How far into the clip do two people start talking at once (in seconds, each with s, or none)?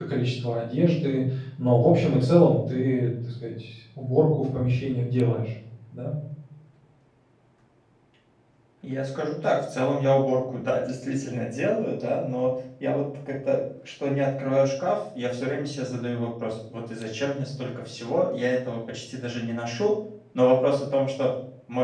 none